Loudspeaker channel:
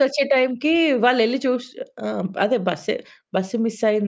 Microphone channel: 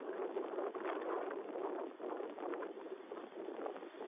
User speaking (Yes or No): No